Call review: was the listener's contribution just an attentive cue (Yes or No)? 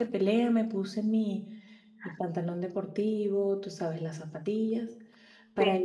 Yes